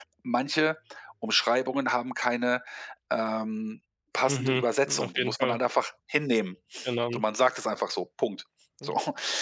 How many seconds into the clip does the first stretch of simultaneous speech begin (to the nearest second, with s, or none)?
4 s